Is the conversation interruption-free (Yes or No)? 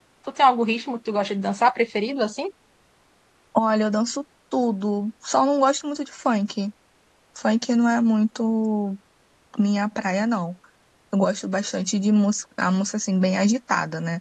Yes